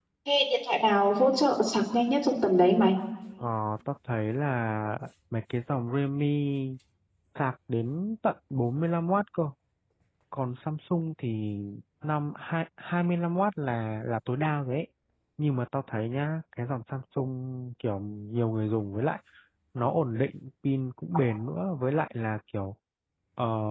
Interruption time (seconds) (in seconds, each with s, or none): none